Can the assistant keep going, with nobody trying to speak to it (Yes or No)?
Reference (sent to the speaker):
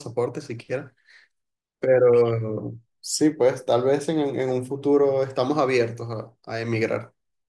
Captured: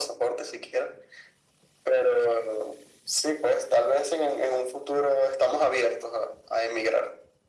Yes